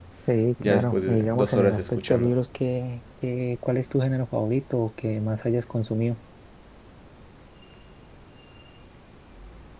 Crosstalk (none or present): present